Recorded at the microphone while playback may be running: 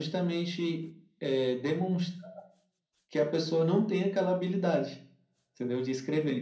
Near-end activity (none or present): none